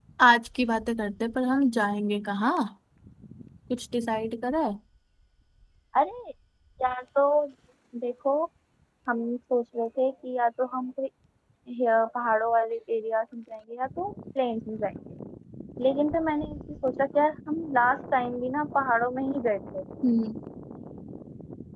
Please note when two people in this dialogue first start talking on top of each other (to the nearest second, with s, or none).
none